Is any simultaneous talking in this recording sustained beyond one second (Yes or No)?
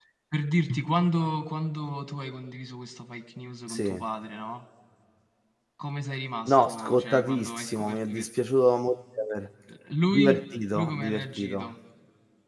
Yes